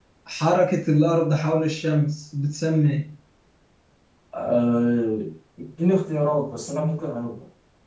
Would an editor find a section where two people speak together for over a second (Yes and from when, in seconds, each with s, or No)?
No